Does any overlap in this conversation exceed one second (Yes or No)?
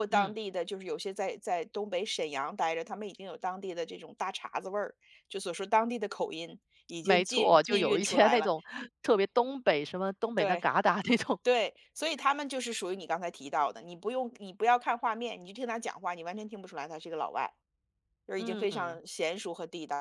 Yes